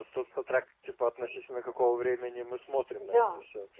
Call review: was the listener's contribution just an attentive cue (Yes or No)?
No